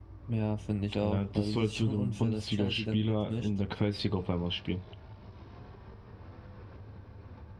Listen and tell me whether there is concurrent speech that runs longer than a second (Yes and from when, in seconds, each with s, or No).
Yes, from 1.0 s